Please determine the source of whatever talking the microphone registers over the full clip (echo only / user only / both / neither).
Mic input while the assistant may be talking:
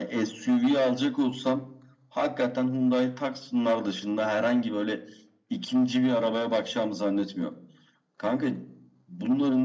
echo only